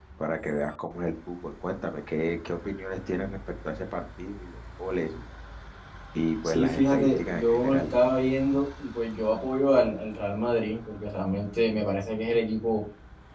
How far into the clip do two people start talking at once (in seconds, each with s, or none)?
6.4 s